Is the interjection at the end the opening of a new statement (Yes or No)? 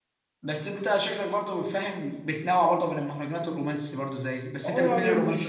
Yes